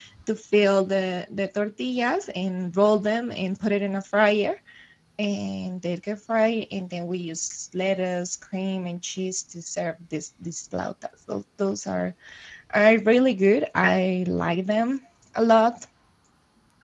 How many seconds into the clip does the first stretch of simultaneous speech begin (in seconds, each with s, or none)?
none